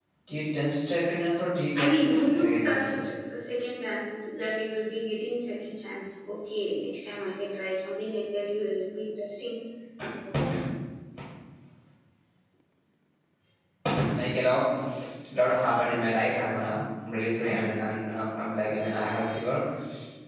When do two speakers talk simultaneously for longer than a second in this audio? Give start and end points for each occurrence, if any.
1.8-3.1

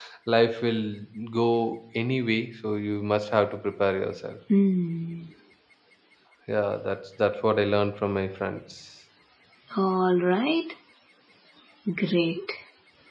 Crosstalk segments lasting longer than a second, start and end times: none

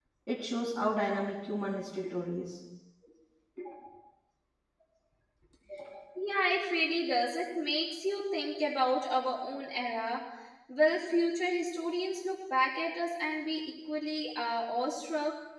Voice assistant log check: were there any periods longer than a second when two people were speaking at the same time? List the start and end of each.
none

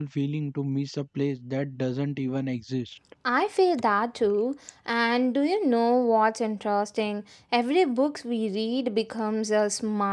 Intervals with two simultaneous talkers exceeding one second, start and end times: none

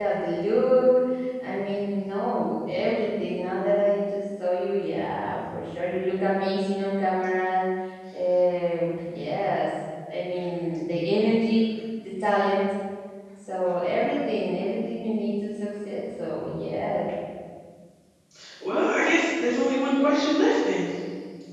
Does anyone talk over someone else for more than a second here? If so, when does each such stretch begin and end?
none

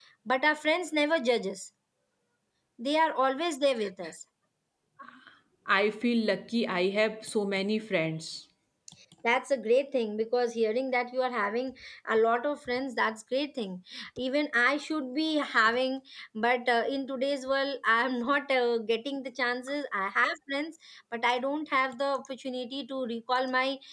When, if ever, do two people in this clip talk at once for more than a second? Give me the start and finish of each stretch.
none

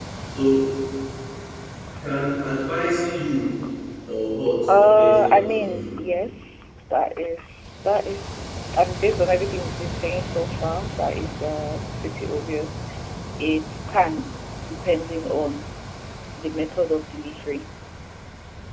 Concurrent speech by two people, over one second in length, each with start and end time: 4.7-6.0

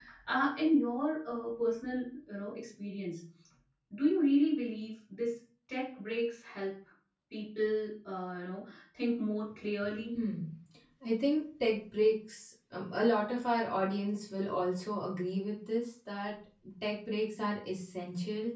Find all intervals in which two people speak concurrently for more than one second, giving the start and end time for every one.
none

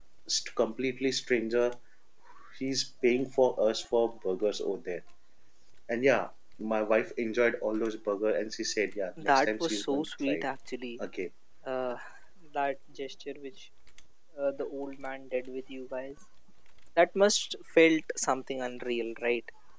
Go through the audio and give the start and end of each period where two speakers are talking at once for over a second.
9.2-10.4

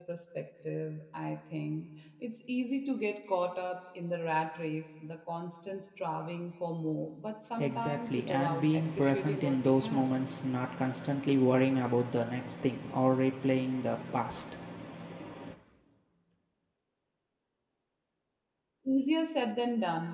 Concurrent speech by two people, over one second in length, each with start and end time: 7.6-10.1

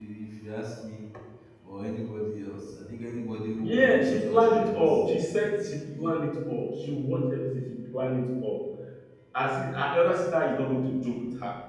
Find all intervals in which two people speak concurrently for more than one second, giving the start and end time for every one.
3.6-5.0

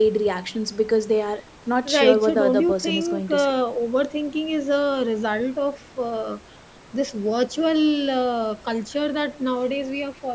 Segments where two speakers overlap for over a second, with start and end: 1.9-3.5

